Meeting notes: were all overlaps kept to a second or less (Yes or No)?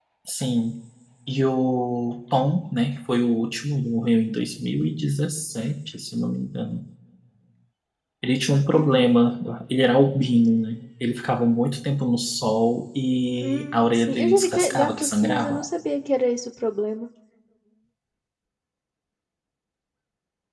No